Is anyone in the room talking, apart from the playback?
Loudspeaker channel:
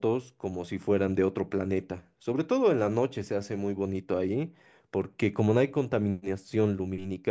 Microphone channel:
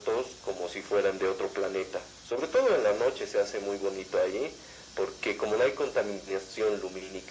No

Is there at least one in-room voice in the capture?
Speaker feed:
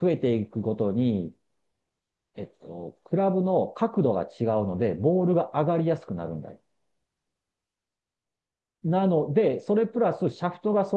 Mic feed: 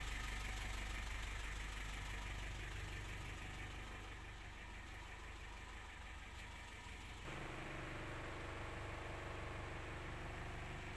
No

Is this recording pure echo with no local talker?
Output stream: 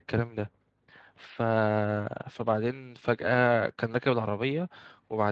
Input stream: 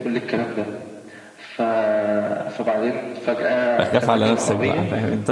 No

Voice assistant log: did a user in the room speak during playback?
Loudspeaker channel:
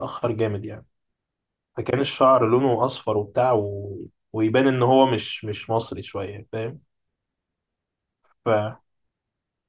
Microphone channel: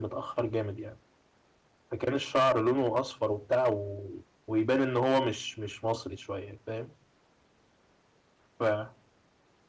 No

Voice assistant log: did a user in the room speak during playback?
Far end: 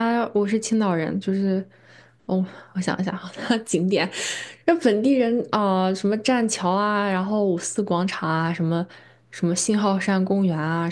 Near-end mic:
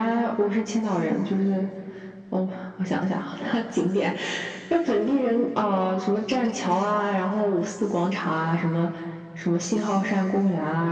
No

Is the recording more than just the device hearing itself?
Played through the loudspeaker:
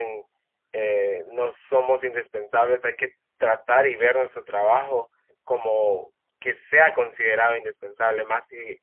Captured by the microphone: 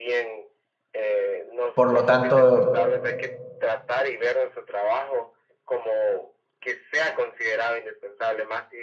Yes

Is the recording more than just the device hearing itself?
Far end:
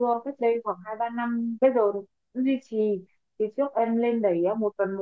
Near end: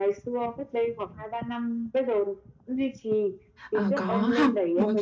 Yes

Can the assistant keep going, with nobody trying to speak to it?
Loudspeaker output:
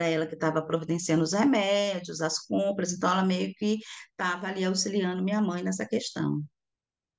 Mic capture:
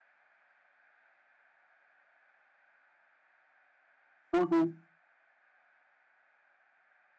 No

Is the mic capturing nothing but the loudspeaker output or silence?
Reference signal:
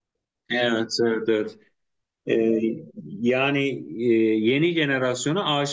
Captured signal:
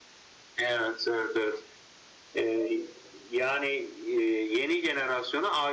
Yes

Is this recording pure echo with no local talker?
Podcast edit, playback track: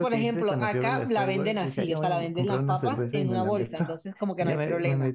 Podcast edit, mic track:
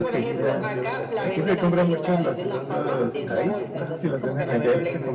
No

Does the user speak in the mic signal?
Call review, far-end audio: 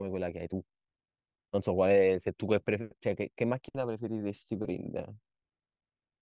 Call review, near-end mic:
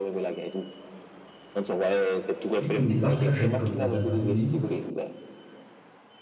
Yes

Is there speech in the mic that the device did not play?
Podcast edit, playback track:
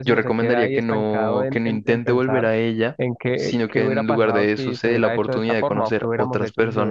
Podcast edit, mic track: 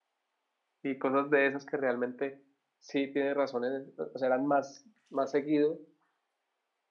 Yes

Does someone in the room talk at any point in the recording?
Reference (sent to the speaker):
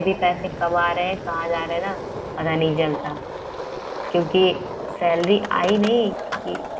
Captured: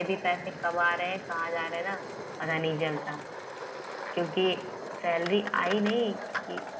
No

